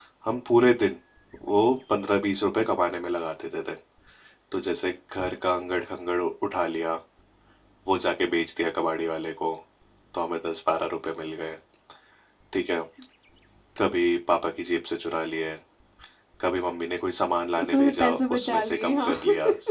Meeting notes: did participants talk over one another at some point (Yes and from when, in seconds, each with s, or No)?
Yes, from 17.5 s